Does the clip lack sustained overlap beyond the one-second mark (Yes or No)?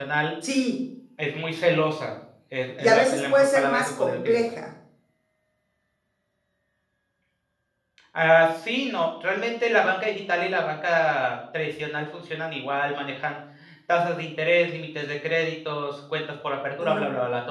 No